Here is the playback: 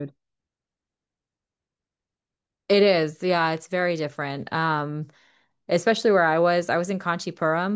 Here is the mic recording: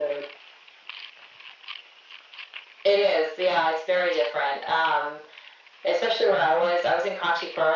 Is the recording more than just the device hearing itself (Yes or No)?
No